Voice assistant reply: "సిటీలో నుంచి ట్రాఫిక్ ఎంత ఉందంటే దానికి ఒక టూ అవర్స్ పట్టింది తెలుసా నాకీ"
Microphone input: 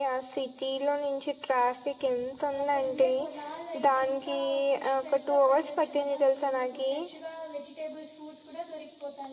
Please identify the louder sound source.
echo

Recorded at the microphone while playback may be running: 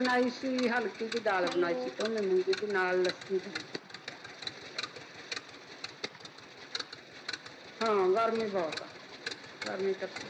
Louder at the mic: echo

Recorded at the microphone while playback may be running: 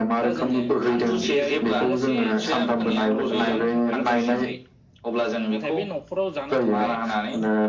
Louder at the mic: echo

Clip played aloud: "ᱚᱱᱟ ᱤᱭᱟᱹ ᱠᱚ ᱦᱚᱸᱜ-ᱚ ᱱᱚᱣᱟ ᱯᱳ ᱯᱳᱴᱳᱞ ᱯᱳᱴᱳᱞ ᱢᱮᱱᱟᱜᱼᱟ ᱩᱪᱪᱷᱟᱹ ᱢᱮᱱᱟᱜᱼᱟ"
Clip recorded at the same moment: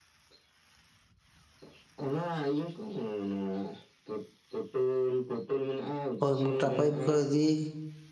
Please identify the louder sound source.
user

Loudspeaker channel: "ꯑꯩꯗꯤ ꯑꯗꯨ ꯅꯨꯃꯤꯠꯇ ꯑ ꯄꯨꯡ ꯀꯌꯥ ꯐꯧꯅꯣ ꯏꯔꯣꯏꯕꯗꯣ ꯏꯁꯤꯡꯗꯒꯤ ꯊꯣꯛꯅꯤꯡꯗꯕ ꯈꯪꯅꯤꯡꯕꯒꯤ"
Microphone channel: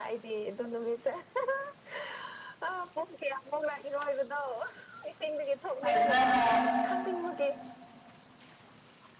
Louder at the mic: user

